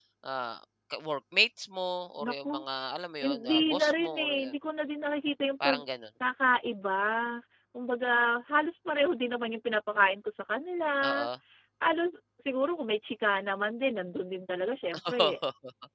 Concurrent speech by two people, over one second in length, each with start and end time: 3.2-4.5

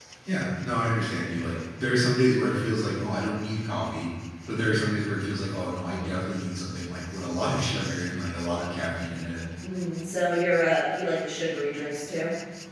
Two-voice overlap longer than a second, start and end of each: none

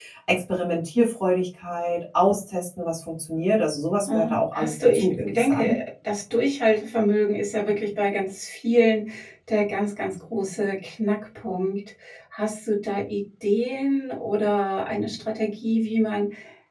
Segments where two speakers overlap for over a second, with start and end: 4.1-5.8

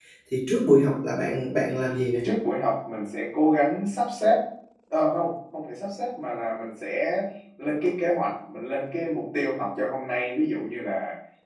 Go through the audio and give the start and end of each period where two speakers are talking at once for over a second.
none

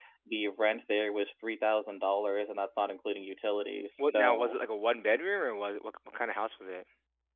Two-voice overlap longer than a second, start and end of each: none

